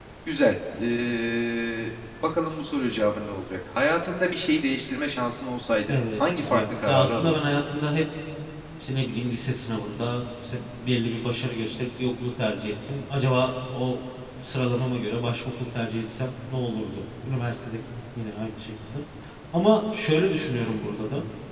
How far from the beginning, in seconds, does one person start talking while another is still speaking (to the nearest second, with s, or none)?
6 s